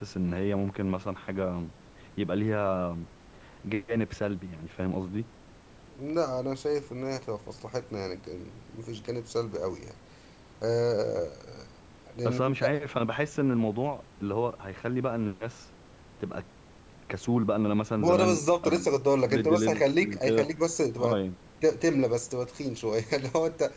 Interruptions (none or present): present